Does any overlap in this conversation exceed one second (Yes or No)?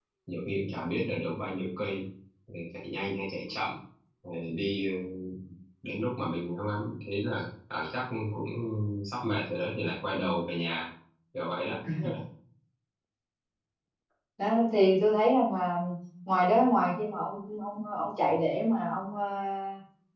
No